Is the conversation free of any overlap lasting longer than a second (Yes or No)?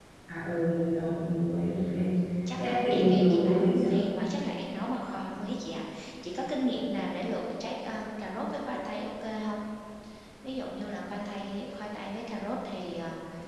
No